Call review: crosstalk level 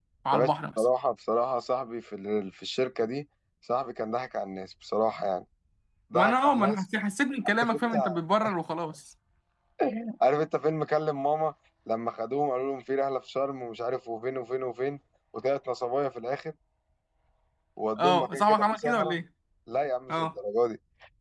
present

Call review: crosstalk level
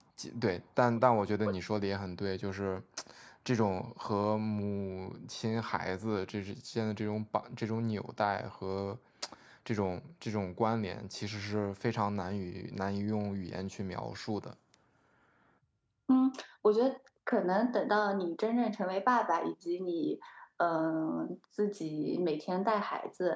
none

